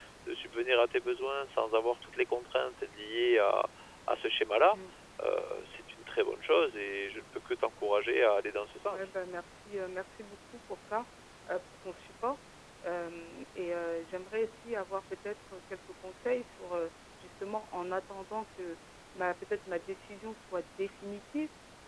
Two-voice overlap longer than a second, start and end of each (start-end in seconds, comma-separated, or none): none